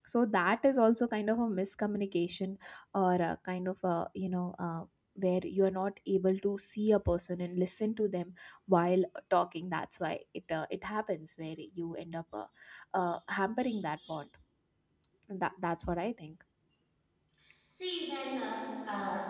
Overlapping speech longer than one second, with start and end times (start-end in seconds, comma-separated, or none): none